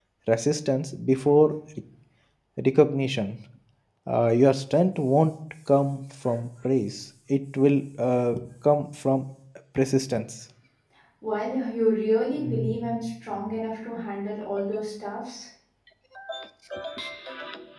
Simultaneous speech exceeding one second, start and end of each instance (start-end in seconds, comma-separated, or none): none